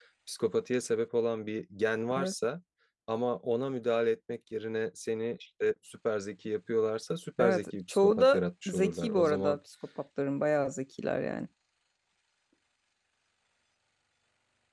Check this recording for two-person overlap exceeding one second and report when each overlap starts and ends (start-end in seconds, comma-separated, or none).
7.4-9.6